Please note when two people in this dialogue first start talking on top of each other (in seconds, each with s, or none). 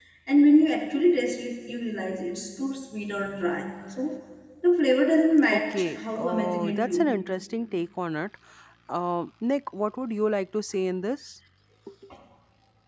5.5 s